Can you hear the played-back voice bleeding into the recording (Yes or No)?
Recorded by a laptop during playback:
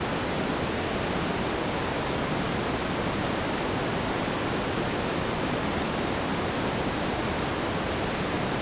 No